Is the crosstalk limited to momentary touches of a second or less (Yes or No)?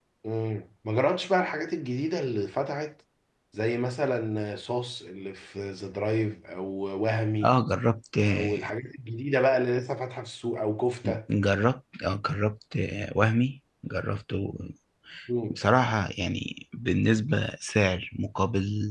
Yes